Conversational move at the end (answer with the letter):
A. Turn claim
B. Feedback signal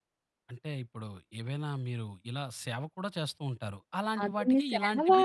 A